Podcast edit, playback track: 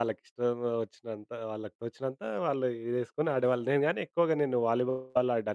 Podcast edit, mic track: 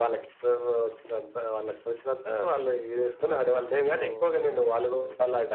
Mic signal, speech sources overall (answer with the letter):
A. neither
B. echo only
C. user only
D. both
D